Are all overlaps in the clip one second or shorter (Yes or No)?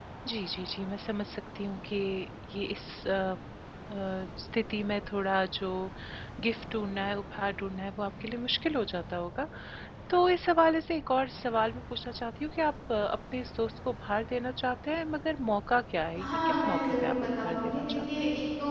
No